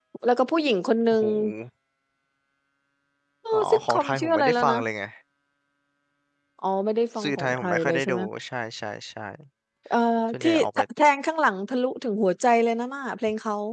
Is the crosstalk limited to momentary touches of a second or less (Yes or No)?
No